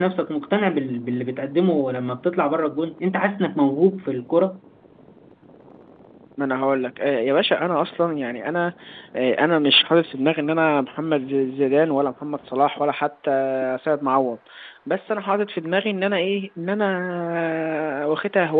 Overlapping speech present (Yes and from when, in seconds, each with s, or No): No